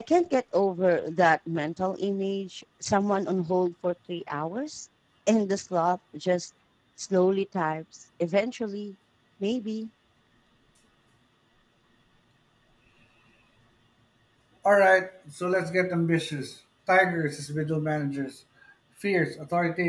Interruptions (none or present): none